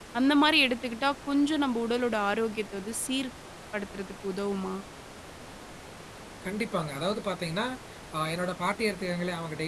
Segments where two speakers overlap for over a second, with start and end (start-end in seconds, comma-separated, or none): none